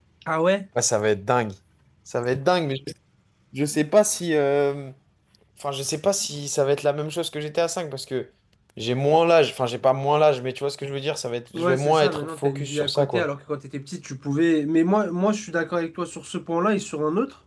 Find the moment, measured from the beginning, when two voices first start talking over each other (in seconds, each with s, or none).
11.5 s